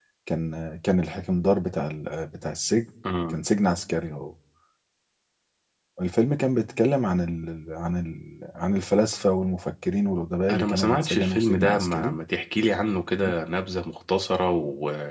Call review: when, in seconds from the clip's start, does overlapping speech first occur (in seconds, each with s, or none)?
10.5 s